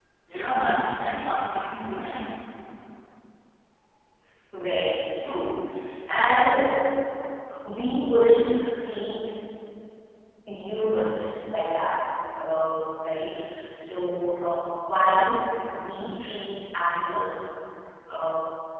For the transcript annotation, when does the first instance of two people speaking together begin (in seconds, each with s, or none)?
none